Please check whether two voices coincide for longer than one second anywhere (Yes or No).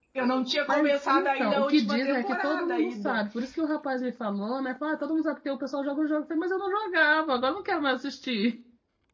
Yes